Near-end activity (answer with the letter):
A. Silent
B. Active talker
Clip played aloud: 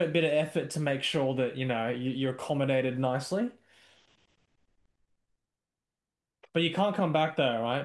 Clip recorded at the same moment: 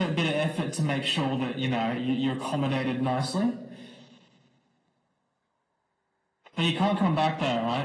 A